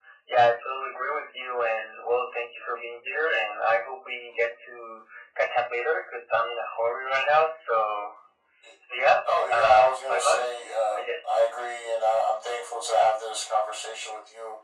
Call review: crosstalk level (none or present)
present